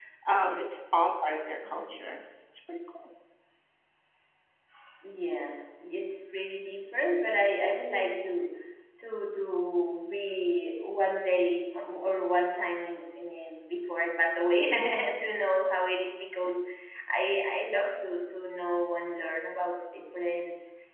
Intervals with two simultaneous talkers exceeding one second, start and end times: none

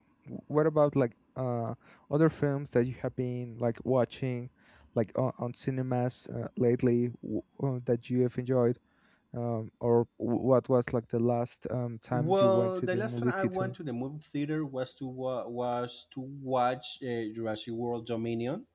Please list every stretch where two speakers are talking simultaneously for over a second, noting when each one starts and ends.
12.3-13.7

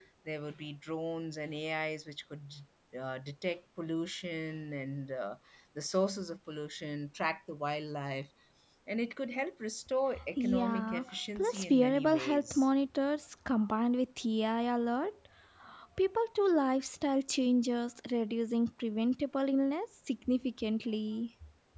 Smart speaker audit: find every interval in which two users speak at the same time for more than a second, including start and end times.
10.4-12.7

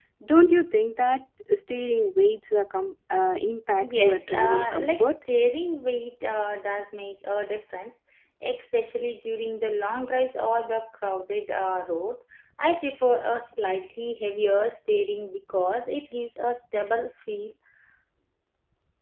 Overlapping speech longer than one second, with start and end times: 3.8-5.1

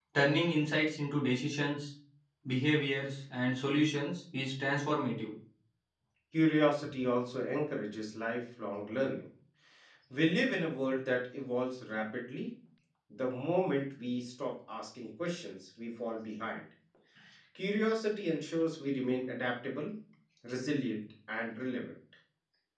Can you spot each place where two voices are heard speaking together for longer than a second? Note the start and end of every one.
none

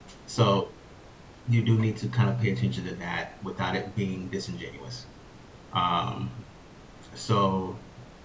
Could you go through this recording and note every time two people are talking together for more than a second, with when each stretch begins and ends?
none

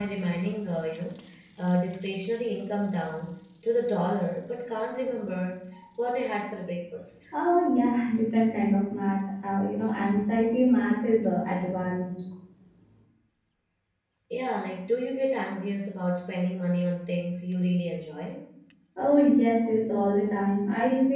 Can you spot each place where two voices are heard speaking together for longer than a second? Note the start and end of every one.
none

